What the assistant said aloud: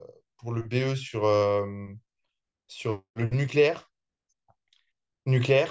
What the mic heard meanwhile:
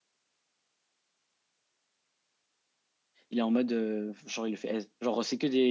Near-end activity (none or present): present